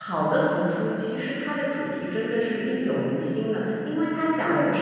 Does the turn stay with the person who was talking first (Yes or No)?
Yes